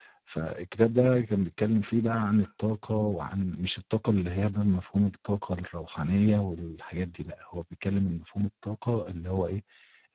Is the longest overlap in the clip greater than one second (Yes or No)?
No